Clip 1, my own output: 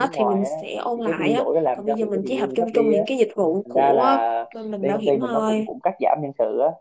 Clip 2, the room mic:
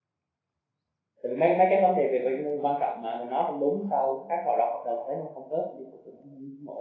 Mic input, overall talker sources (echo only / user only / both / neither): user only